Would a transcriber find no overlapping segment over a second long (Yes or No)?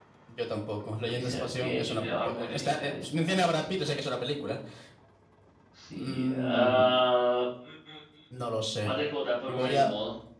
No